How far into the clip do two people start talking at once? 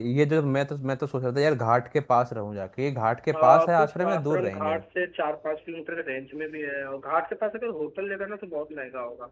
3.3 s

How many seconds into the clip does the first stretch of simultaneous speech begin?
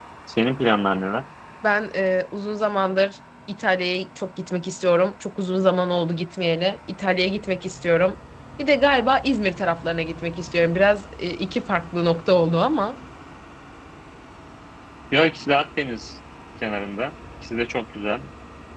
none

